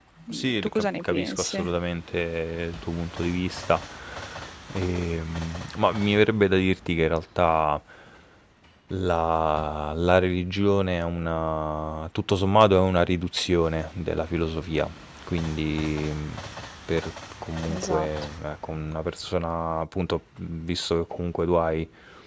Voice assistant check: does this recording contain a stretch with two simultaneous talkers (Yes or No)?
Yes